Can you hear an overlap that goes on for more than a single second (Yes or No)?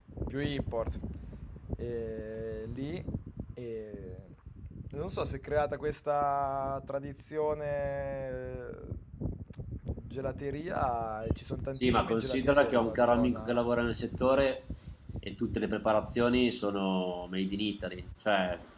Yes